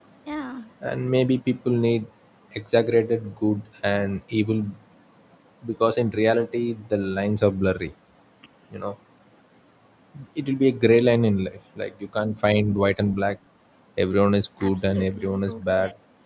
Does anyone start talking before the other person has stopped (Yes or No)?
Yes